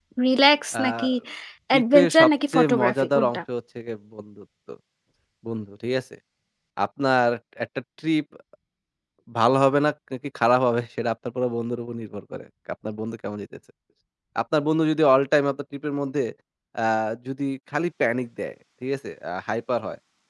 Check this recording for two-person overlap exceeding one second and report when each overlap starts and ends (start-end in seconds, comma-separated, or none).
1.7-3.4